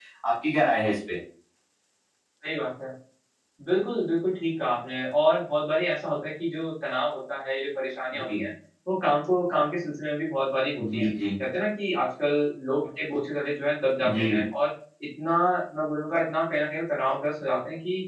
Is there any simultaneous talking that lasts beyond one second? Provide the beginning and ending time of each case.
none

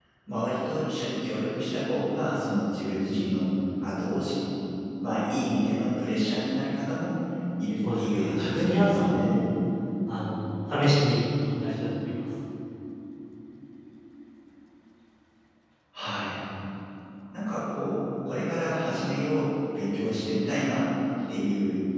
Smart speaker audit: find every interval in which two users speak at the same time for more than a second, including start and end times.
7.8-9.4

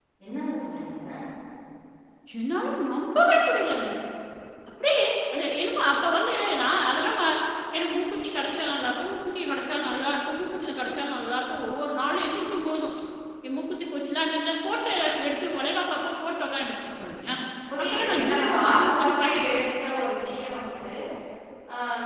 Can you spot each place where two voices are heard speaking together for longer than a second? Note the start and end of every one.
17.8-19.4

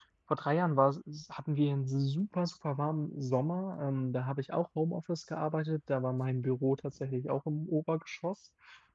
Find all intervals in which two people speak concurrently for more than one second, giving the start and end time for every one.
none

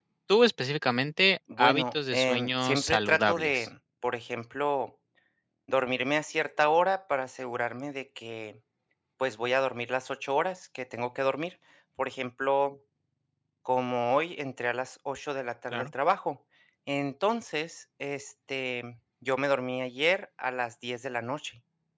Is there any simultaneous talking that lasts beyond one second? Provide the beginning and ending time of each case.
1.6-3.7

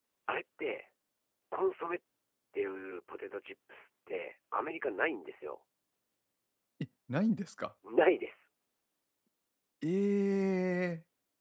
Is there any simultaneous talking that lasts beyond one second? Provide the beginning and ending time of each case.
none

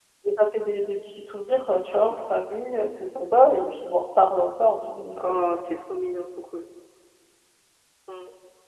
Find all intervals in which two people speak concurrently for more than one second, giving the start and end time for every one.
none

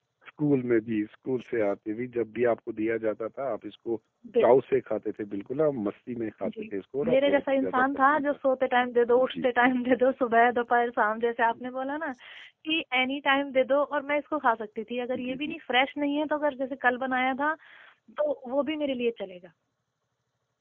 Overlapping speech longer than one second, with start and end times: 7.1-8.4

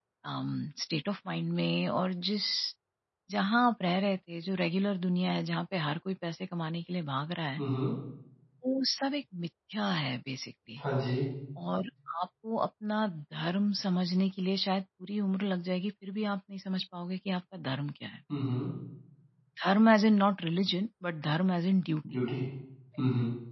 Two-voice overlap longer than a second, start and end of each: none

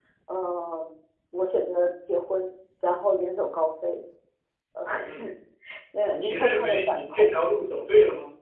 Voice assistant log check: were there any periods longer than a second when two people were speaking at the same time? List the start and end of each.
6.1-7.3

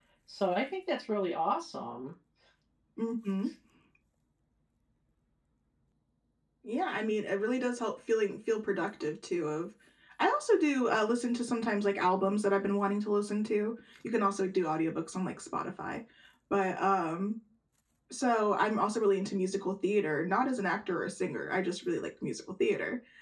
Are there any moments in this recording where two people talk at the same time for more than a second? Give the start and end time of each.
none

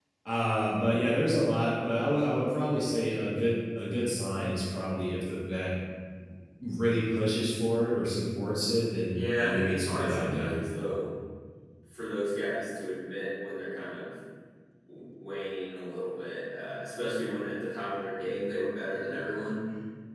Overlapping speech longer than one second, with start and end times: 9.1-10.6

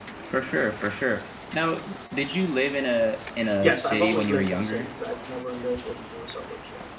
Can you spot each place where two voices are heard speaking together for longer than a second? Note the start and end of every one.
3.6-4.9

